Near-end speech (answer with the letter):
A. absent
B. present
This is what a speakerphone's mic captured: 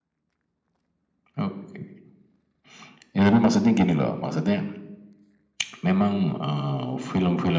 A